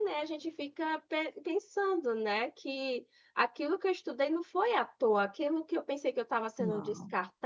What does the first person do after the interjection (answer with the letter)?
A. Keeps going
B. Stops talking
A